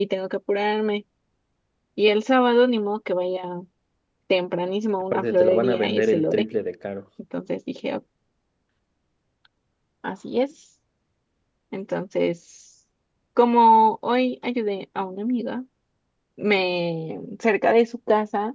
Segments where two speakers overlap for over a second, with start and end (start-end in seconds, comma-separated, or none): 5.1-6.5